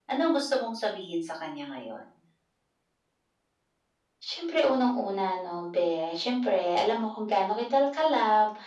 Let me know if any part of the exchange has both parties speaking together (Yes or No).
No